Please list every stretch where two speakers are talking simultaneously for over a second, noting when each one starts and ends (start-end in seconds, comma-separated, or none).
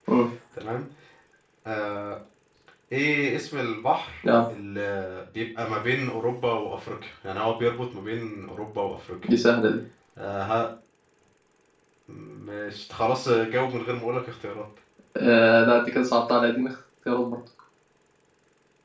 none